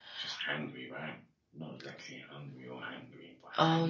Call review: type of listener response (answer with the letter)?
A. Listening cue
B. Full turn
B